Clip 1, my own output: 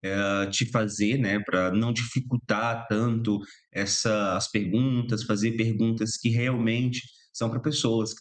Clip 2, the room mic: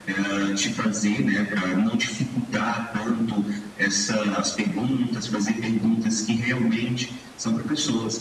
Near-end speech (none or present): none